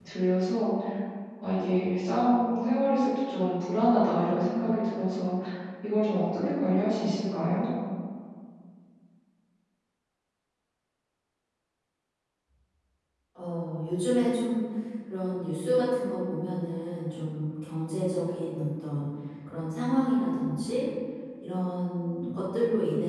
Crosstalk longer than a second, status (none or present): none